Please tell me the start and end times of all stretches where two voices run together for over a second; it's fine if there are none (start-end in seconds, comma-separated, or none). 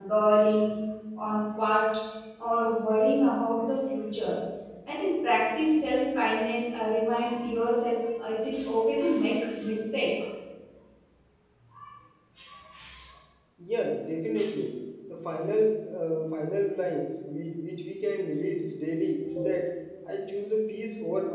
none